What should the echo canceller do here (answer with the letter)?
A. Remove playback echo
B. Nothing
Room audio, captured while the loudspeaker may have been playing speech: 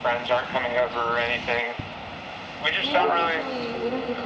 A